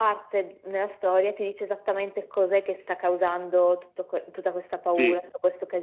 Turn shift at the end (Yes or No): No